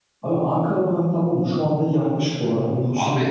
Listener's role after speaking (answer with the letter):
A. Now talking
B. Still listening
B